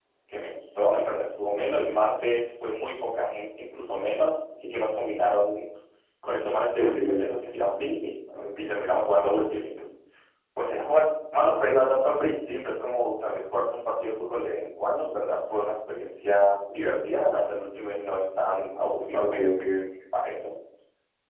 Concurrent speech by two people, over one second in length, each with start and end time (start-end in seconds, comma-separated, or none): none